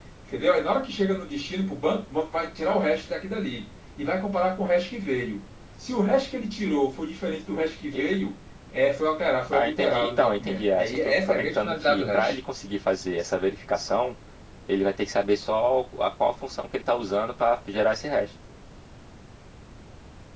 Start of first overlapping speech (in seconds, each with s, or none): 9.5 s